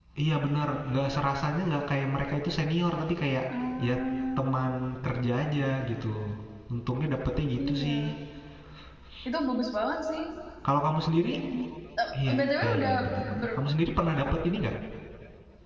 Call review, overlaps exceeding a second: present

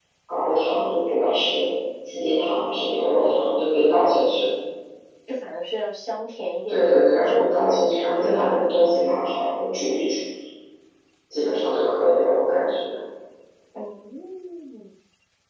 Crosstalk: present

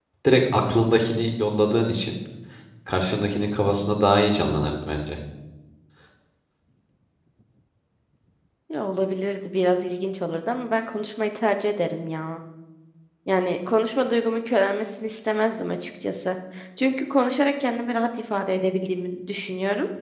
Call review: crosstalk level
none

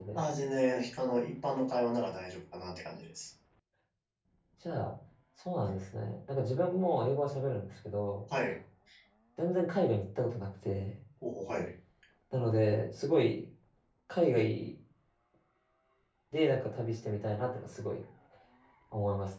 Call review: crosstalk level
none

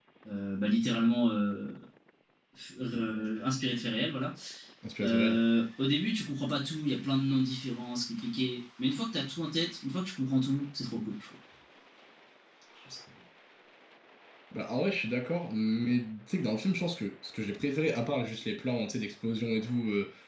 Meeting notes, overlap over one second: none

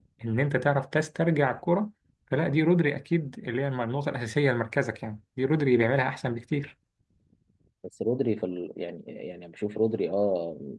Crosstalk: none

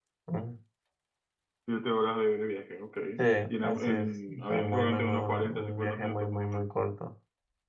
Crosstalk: present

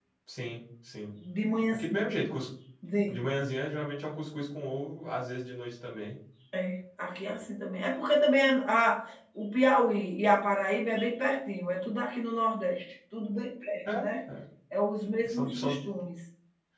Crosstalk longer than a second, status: none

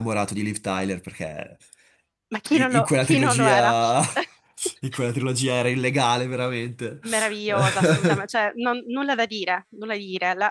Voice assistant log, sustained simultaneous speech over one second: present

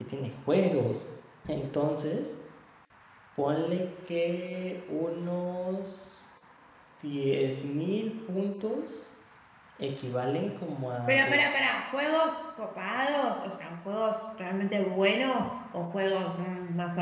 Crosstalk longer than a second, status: none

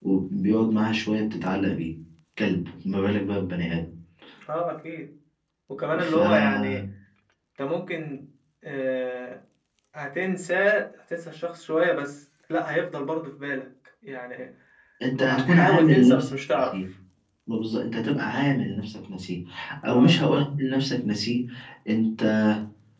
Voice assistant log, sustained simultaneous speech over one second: present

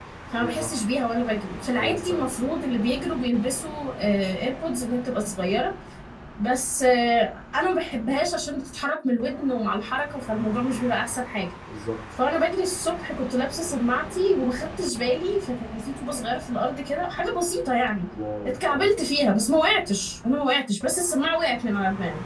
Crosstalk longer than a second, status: none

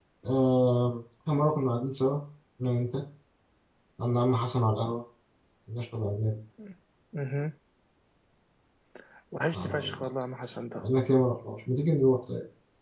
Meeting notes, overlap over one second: none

